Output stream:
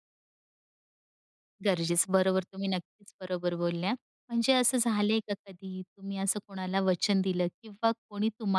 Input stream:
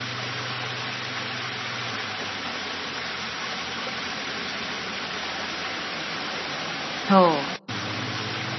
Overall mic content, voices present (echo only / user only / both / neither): user only